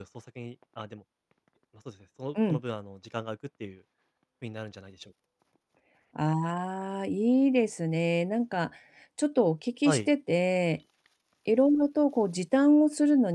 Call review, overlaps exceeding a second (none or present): none